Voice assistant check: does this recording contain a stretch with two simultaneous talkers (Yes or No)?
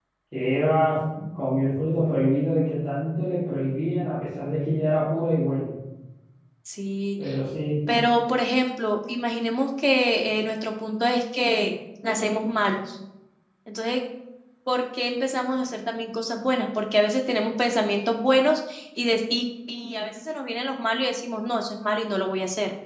No